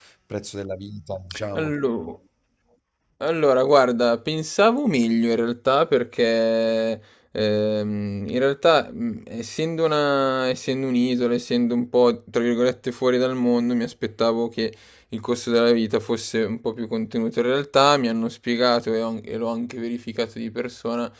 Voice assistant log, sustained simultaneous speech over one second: none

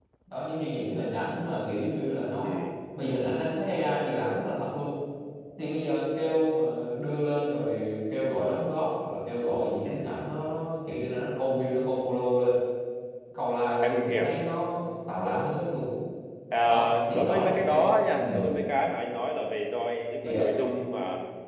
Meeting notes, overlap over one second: present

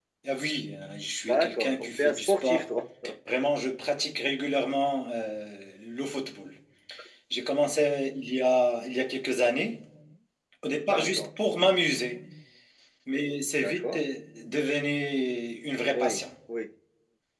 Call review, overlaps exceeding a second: present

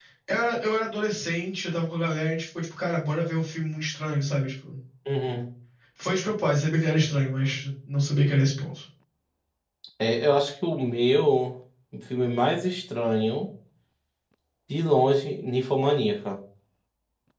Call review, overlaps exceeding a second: none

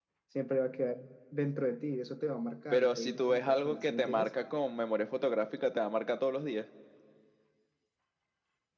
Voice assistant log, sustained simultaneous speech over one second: present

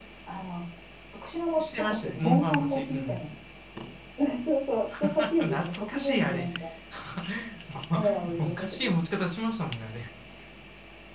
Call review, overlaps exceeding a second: present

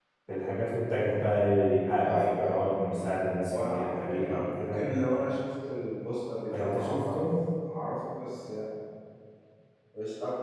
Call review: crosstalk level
present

